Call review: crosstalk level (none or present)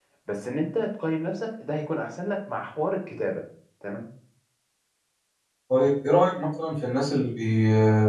none